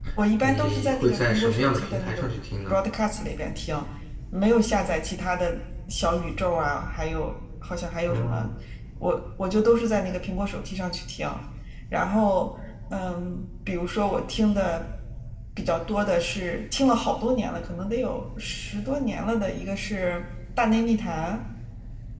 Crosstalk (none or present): present